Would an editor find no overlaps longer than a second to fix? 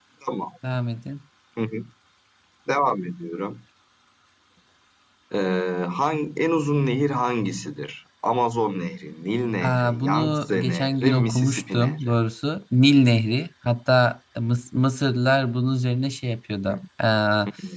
No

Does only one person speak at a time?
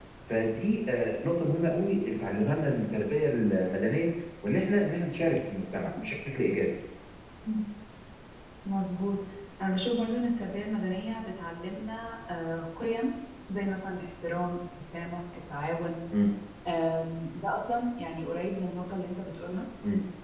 Yes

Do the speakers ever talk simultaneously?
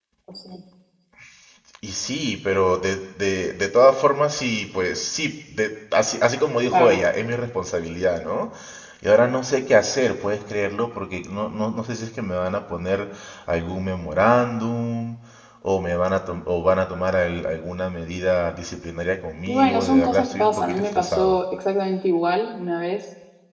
Yes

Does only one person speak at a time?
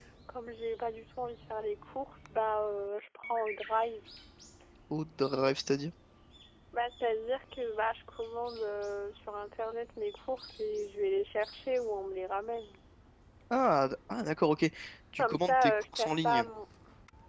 No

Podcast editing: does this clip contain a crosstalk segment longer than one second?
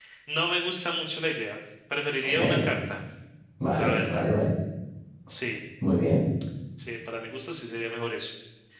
No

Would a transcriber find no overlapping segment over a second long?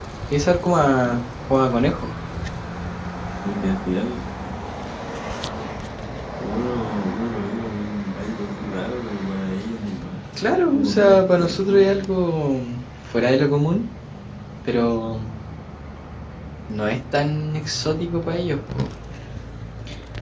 No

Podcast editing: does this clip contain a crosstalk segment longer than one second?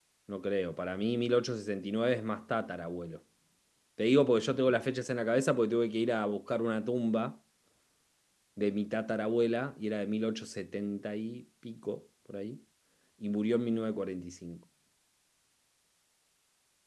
No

